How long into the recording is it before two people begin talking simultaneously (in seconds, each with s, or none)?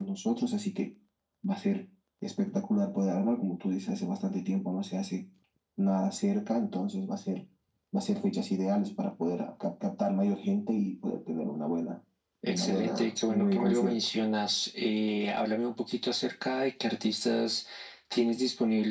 12.5 s